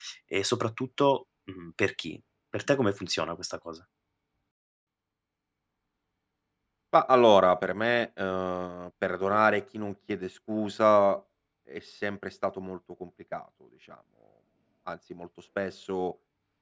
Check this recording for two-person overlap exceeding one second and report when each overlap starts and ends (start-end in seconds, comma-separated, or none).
none